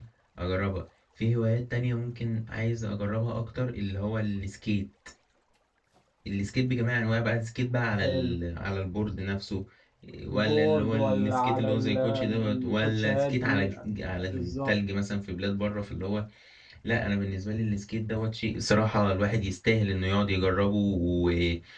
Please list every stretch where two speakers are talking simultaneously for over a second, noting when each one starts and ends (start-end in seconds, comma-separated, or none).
10.3-13.7